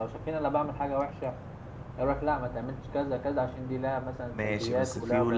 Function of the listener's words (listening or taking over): taking over